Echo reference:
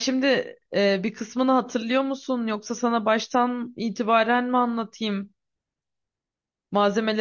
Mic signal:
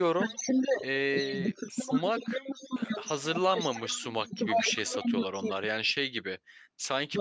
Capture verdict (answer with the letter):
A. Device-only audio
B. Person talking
B